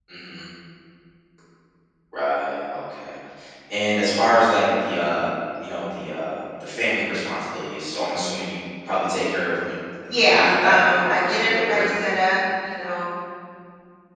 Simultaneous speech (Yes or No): Yes